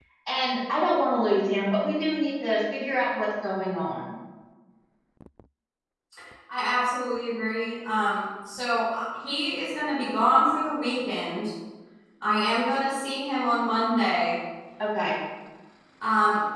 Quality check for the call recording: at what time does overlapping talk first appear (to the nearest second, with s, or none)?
none